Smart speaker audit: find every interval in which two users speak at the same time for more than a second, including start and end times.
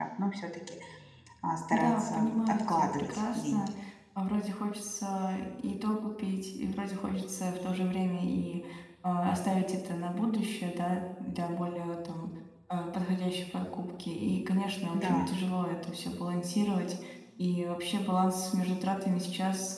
1.7-3.7

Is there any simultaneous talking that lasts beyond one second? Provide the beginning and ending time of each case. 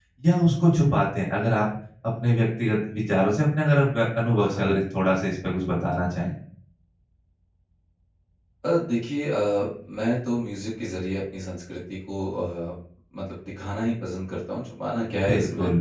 none

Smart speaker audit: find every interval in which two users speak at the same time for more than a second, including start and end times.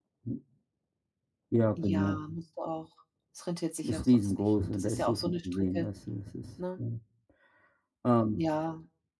3.9-5.9

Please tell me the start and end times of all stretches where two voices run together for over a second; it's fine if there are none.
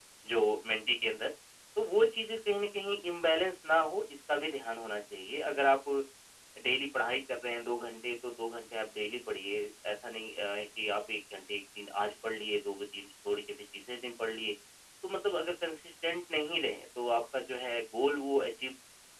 none

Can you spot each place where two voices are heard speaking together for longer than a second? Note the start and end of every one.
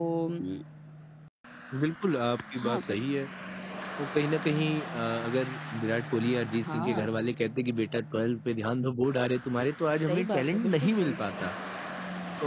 10.1-11.5

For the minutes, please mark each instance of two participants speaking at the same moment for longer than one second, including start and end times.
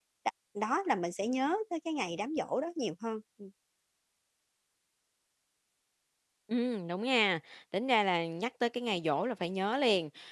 none

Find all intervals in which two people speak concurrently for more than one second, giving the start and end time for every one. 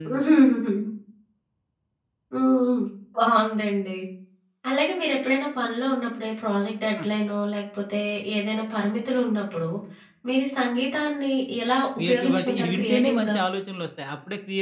12.0-13.4

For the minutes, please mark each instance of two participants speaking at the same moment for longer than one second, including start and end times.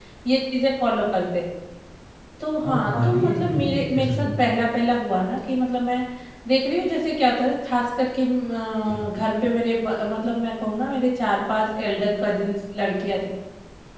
2.7-4.3

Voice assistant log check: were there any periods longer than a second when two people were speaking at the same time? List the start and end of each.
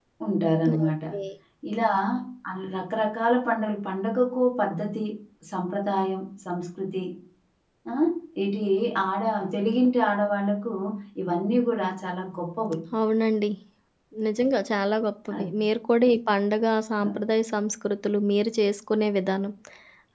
none

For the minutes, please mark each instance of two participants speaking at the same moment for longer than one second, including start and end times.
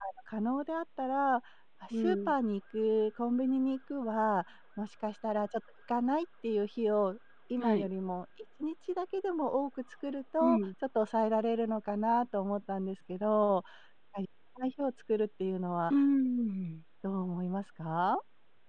none

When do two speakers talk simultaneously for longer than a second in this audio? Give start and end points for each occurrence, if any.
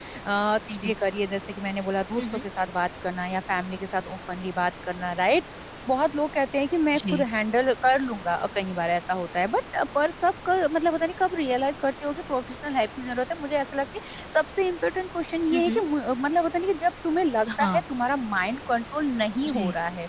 none

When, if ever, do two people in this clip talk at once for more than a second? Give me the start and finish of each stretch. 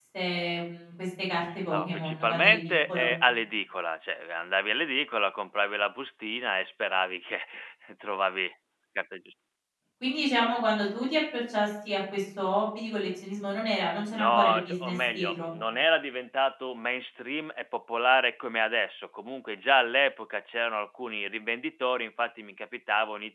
1.7-3.1, 14.1-15.4

